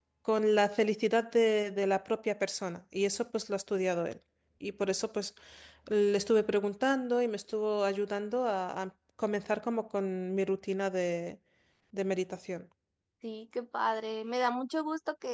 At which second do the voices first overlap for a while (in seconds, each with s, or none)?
none